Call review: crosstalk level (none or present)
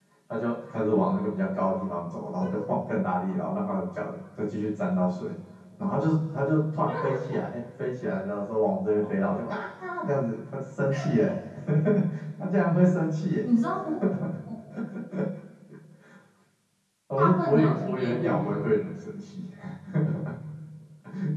present